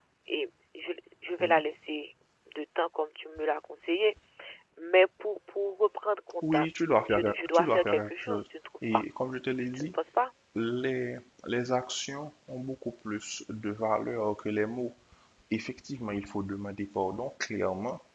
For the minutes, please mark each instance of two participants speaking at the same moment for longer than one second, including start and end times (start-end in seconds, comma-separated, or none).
7.1-8.5